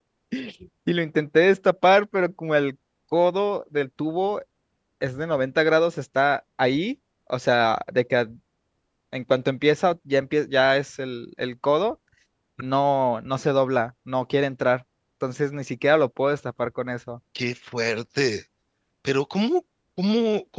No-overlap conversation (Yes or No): Yes